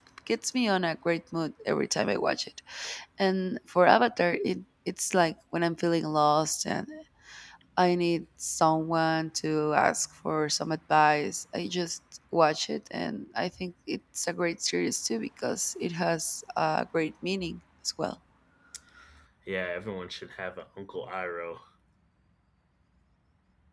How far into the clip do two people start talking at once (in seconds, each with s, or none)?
none